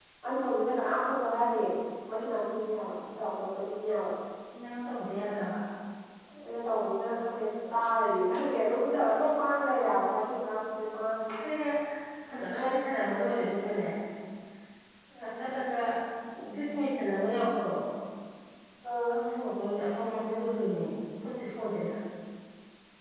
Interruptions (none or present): none